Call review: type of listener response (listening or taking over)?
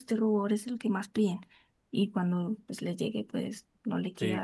taking over